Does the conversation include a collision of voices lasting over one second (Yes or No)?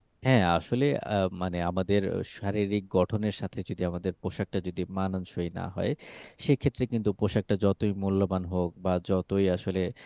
No